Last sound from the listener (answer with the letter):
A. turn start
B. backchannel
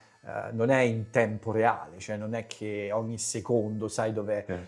B